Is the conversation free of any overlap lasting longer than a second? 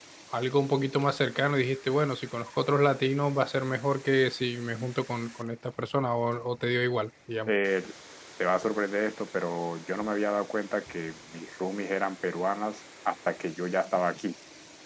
Yes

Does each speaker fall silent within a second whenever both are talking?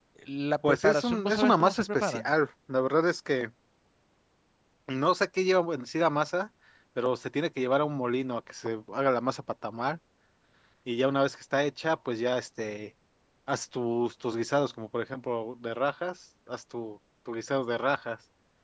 No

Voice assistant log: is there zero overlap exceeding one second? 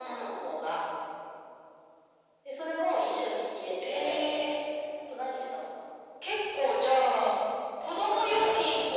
Yes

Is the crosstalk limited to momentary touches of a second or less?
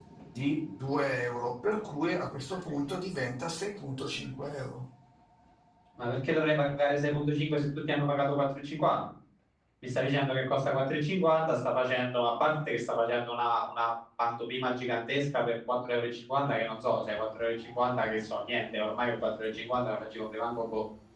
Yes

